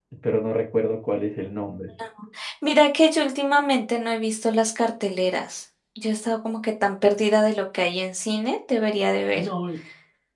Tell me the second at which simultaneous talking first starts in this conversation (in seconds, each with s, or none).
none